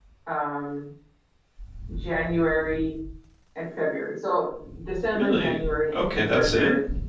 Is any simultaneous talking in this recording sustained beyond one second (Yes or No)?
Yes